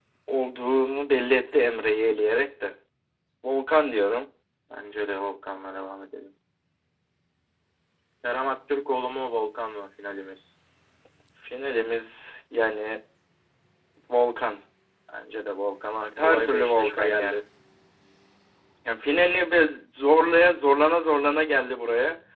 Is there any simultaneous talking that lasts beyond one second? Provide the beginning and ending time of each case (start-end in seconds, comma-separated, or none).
16.2-17.4